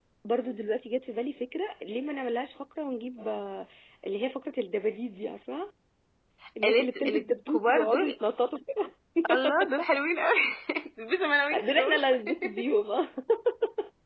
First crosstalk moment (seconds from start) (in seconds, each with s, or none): 6.6 s